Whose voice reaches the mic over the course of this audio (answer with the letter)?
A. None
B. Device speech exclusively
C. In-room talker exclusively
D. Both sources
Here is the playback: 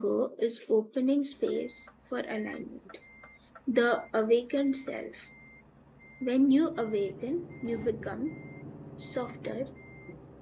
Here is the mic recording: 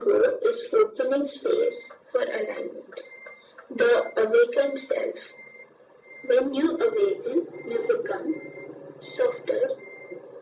B